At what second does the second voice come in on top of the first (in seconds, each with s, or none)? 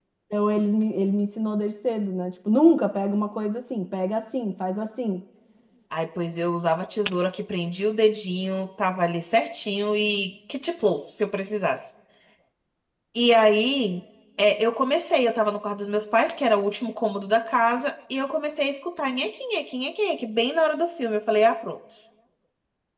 none